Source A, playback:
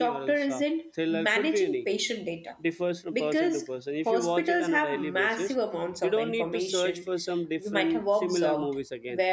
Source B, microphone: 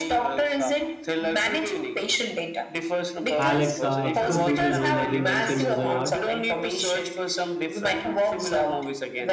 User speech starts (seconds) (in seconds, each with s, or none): 3.4 s